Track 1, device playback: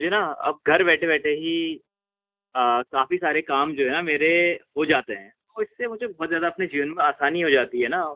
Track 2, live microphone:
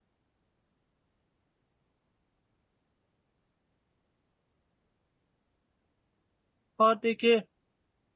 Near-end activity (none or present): present